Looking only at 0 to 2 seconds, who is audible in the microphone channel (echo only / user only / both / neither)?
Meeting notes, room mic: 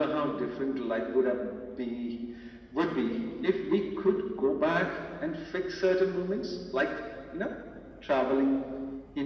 echo only